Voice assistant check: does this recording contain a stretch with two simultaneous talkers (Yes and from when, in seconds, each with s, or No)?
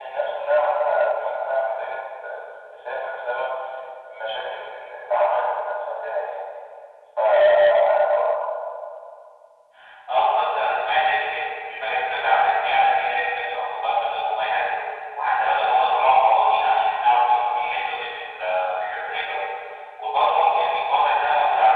No